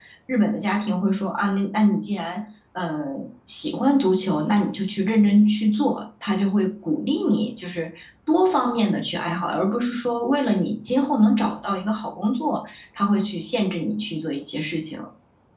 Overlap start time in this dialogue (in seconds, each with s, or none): none